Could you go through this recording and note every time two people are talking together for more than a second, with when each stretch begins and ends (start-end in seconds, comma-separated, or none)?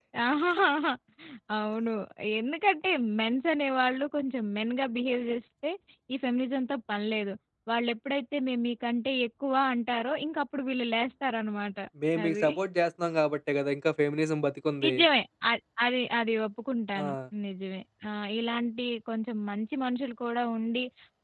none